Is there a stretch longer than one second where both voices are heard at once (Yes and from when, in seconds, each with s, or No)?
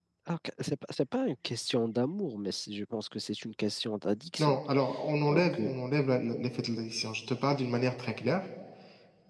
No